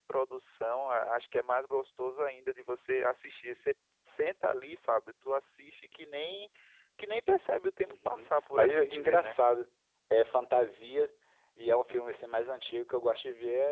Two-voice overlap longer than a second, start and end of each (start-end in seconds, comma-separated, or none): 7.8-9.4